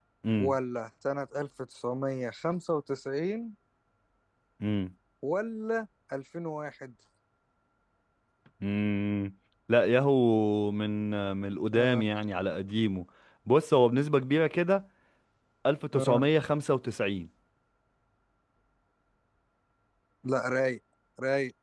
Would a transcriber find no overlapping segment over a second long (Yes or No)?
Yes